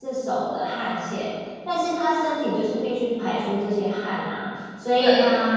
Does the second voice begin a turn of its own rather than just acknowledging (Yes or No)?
No